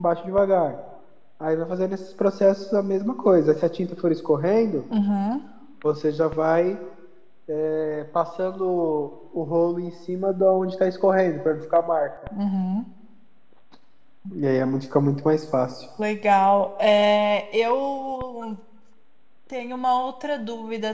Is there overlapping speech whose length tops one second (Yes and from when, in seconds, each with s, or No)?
No